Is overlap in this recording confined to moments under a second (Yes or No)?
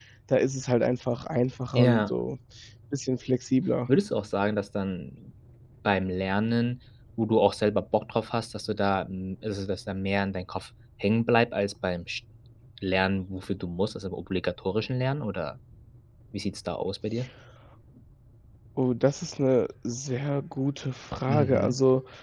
Yes